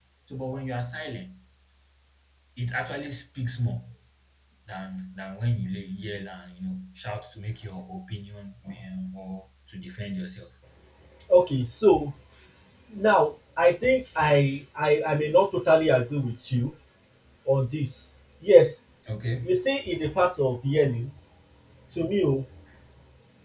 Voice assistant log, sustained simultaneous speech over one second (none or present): none